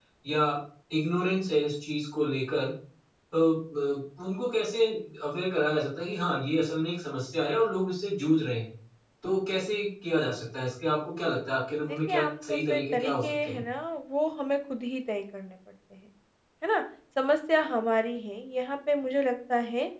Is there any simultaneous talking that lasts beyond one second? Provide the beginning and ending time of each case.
11.9-13.6

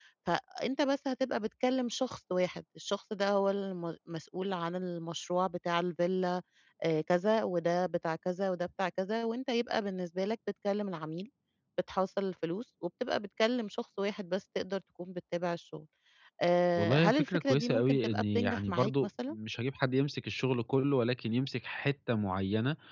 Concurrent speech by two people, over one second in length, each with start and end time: 16.8-19.4

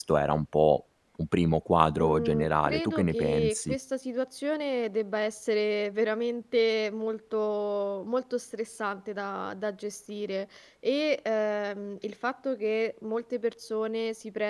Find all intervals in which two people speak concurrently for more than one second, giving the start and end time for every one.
2.0-3.8

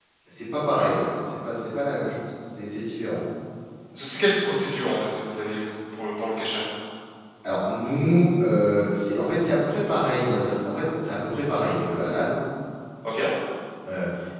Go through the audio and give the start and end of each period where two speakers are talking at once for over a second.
none

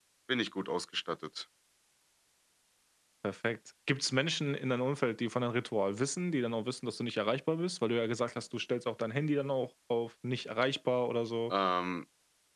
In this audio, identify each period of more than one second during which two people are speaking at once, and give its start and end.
none

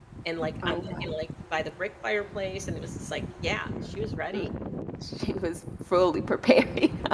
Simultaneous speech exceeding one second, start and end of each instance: none

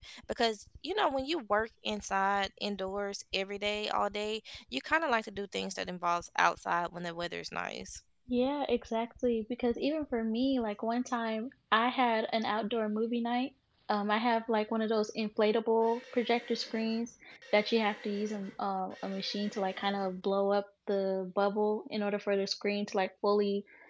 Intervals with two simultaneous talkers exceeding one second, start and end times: none

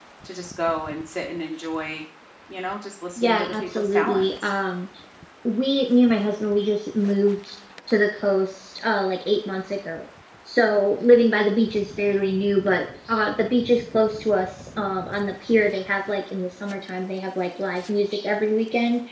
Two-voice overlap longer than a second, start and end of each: 3.2-4.5

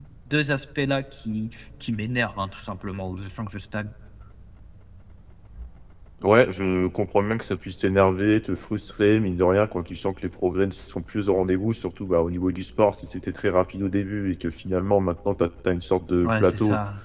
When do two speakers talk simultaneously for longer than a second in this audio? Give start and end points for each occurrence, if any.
none

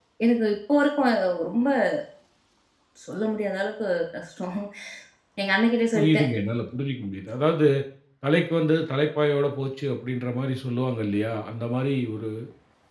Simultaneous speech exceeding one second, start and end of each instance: none

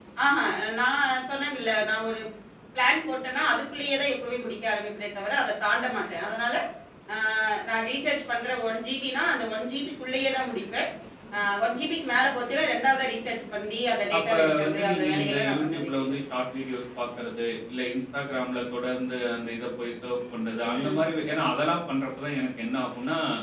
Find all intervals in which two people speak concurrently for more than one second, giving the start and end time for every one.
14.2-16.1

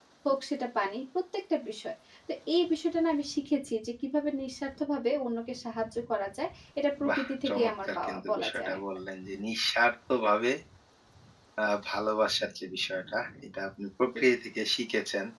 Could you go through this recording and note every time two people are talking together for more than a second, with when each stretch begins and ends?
7.1-8.8

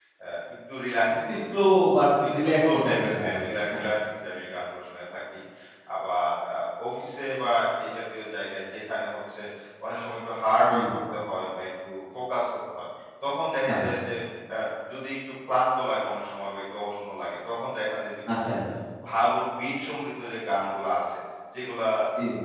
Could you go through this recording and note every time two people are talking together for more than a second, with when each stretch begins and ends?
2.3-3.8

